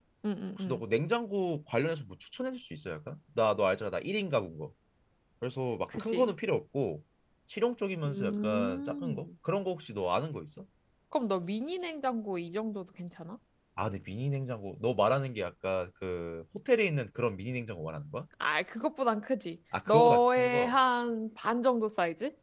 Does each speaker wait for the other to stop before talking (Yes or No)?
No